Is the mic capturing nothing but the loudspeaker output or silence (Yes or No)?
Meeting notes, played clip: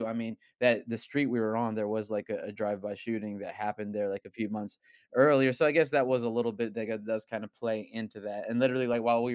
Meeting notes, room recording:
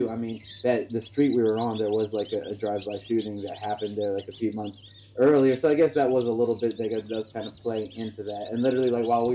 Yes